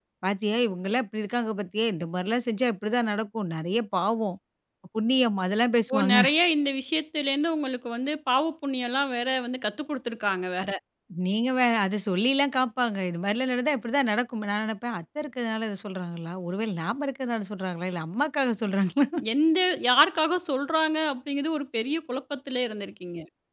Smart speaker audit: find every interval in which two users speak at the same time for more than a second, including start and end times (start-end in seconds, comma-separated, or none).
none